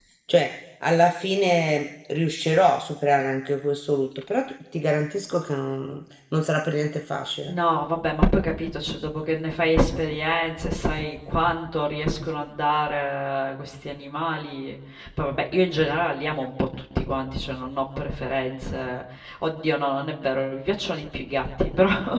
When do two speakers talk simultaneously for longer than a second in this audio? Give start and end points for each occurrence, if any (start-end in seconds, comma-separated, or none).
none